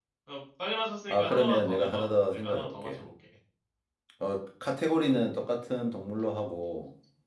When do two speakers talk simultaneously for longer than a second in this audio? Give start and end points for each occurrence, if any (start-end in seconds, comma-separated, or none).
1.1-3.0